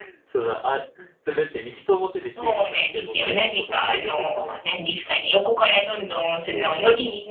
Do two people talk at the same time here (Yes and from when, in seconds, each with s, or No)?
Yes, from 2.4 s